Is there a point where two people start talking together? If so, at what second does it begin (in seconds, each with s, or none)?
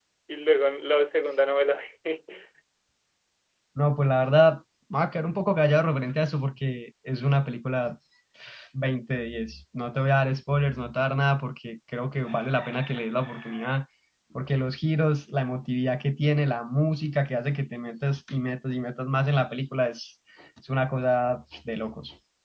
none